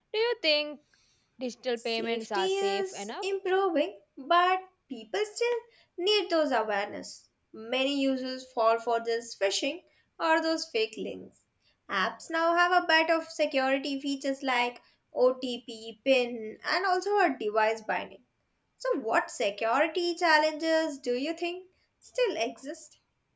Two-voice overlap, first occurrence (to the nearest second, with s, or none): 2 s